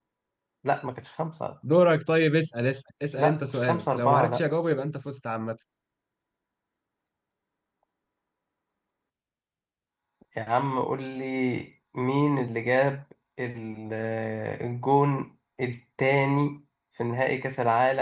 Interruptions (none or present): present